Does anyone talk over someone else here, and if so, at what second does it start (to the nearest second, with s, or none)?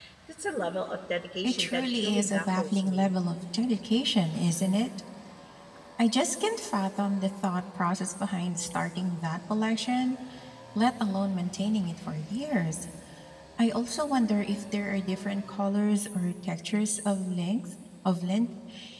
1 s